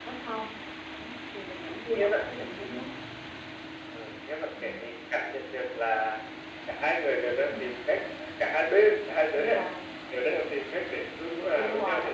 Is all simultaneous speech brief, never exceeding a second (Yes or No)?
No